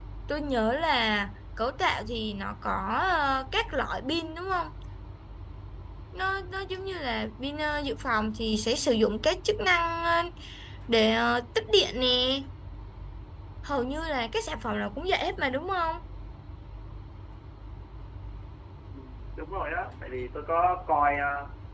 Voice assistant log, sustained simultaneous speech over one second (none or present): none